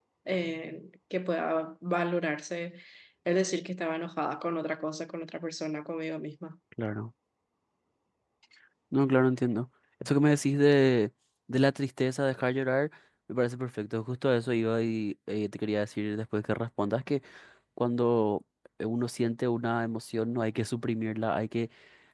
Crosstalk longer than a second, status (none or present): none